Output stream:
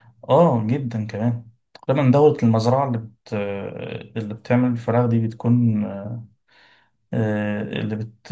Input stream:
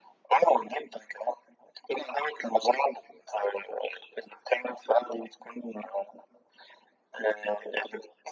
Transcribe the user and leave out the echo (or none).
none